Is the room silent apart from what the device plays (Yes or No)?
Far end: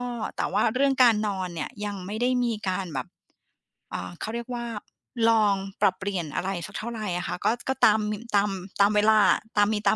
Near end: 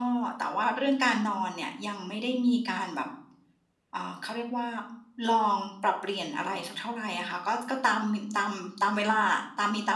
Yes